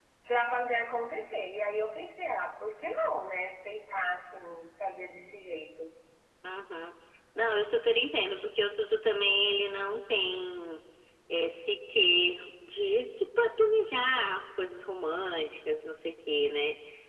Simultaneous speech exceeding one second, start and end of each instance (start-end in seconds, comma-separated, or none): none